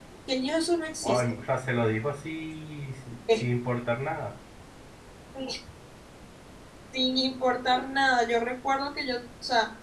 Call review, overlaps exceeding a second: none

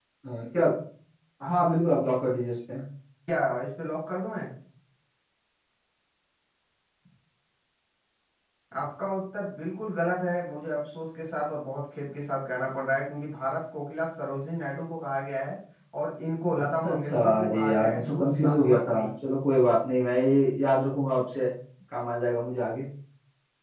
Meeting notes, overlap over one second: present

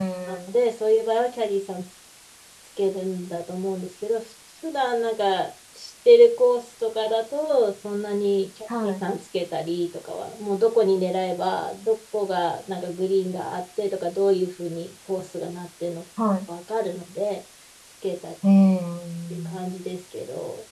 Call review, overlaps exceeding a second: none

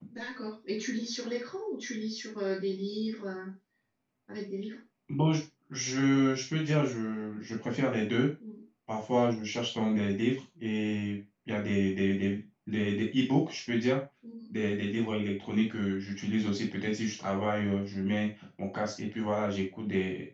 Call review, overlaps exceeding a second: none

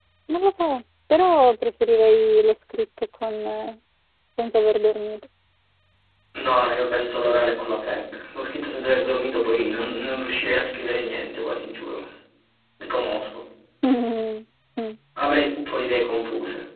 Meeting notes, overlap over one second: none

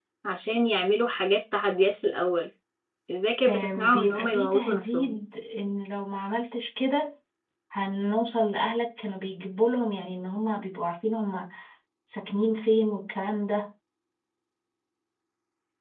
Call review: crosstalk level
present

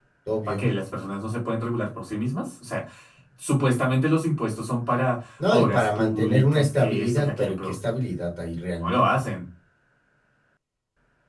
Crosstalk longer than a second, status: present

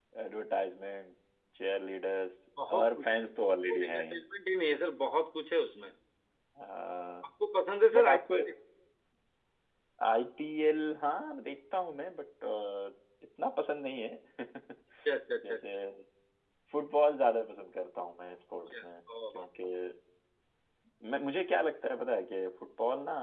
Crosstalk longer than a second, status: present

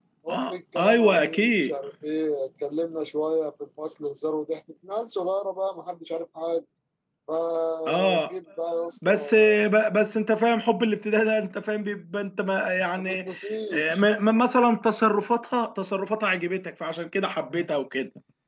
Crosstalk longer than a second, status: present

